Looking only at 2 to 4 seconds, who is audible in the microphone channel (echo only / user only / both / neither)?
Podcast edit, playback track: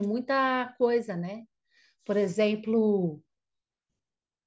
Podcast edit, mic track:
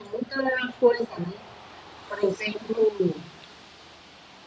echo only